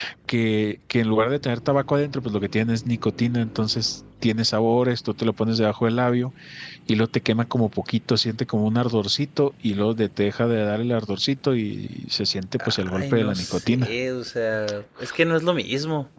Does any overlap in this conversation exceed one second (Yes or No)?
Yes